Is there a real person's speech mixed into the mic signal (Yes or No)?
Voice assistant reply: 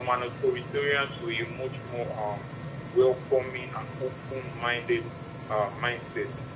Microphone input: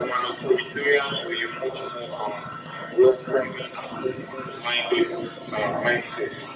No